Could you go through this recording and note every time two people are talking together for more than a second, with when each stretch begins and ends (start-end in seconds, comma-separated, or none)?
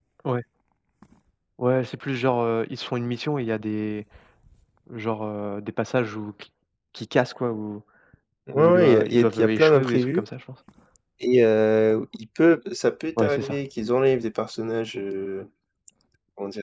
8.5-10.2